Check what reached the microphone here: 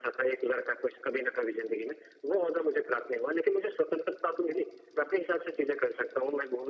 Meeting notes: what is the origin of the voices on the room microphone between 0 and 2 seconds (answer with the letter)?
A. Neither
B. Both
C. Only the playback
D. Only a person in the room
C